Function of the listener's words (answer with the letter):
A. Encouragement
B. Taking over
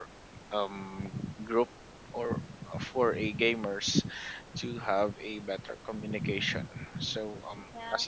A